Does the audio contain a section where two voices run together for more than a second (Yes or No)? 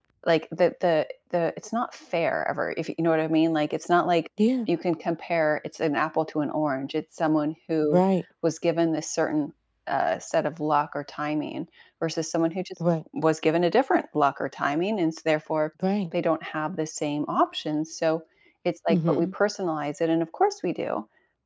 No